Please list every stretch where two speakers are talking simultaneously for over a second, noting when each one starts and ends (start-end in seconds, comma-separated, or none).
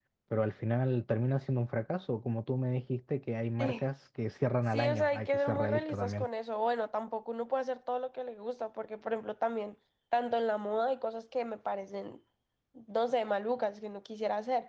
4.7-6.3